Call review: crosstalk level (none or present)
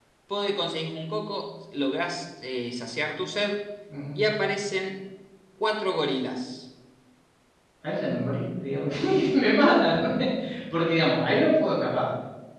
none